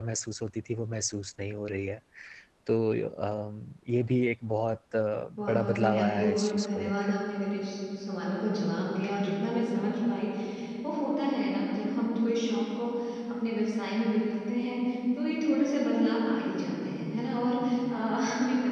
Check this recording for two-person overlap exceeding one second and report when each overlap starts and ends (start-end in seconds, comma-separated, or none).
5.5-6.9